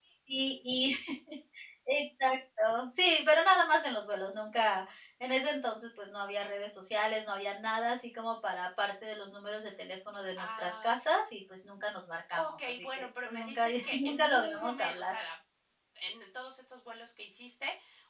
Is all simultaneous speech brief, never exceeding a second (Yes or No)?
No